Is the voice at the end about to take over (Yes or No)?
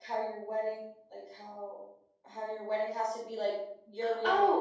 Yes